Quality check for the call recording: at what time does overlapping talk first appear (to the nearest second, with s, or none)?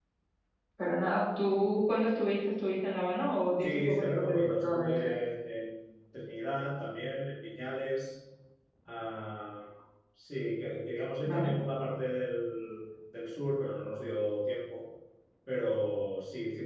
4 s